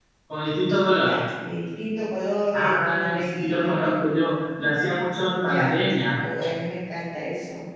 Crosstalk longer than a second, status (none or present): present